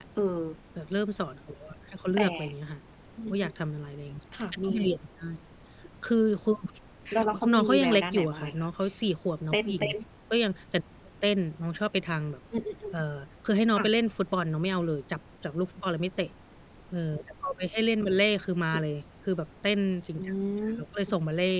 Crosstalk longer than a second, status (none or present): present